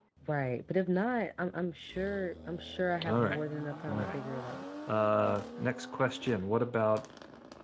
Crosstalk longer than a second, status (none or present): none